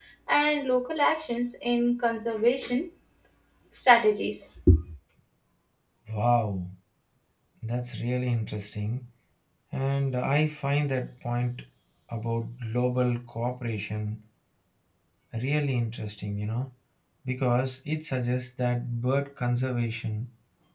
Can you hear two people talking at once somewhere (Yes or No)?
No